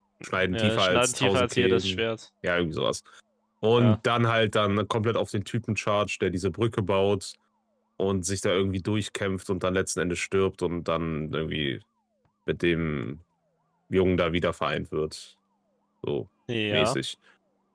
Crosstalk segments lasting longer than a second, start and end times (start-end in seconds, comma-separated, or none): 0.5-2.0